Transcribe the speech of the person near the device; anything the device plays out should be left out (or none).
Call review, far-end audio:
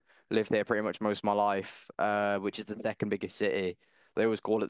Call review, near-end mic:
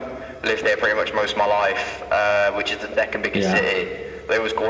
Yeah.